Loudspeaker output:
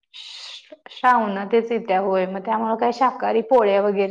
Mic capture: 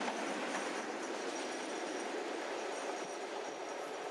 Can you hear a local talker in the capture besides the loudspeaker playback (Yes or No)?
No